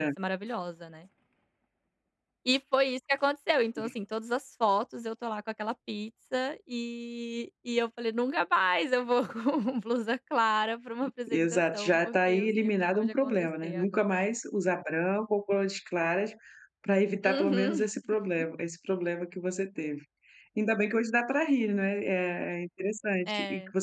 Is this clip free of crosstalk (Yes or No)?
No